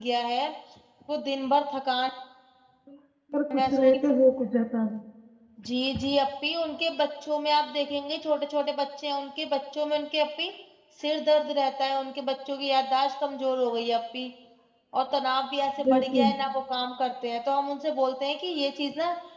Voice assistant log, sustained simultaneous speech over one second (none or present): none